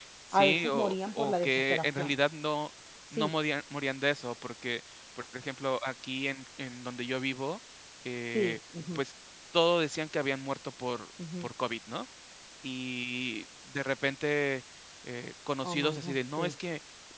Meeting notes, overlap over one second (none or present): present